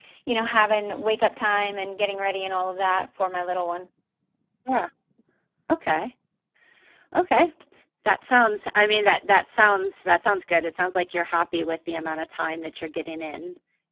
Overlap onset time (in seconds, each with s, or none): none